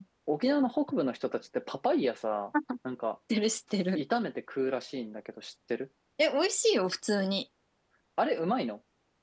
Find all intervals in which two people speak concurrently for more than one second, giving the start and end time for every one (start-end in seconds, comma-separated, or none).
none